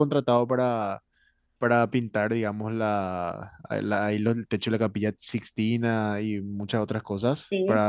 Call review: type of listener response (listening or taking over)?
listening